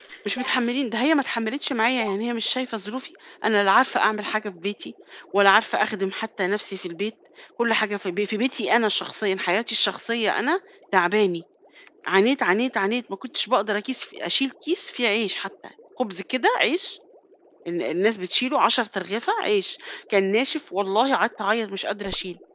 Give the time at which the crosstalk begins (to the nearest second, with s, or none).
none